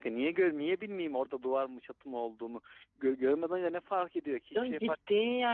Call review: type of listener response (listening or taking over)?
taking over